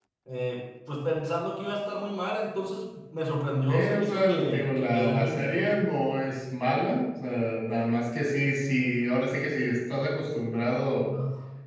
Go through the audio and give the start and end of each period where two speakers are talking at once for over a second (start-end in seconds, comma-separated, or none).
3.7-5.8